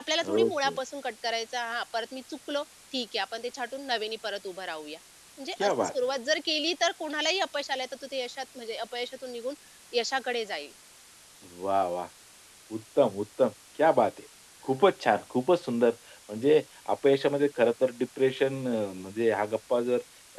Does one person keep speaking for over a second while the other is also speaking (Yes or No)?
No